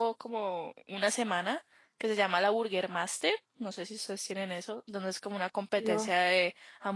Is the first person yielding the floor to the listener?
No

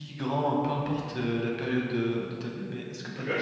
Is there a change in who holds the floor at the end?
No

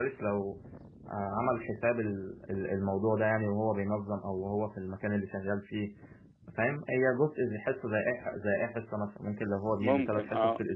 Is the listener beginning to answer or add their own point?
No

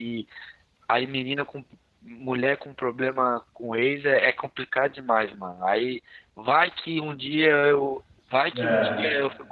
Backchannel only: Yes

